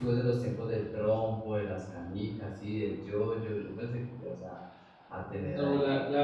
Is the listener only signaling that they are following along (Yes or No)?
No